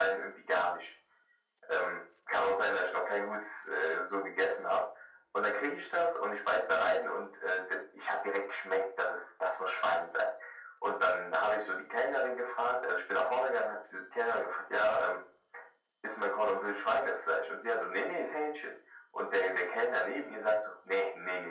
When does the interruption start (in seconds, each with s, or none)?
none